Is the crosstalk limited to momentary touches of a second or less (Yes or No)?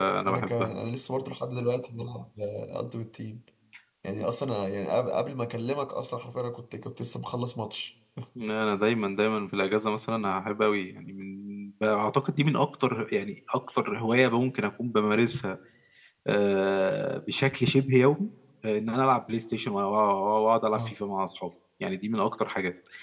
Yes